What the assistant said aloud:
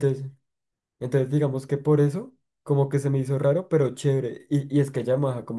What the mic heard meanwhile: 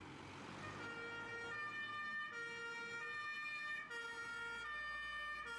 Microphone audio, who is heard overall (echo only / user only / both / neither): neither